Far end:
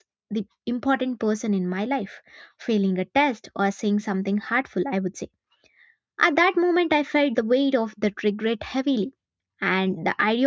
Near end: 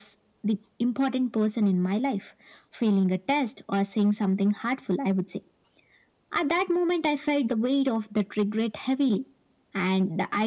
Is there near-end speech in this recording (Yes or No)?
No